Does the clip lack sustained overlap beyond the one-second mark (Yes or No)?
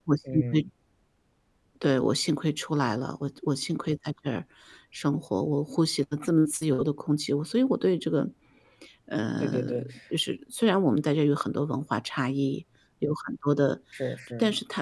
Yes